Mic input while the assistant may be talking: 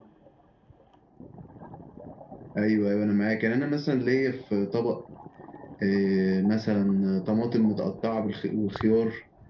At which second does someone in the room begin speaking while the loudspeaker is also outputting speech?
none

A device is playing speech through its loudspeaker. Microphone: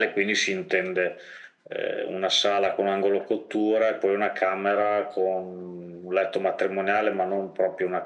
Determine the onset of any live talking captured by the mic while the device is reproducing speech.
none

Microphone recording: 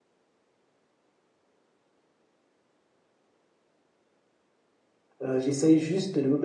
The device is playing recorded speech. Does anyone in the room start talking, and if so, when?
5.2 s

